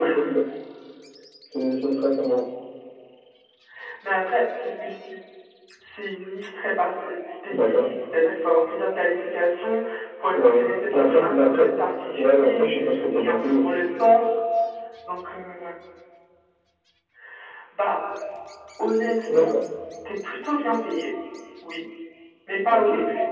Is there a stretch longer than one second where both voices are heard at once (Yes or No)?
Yes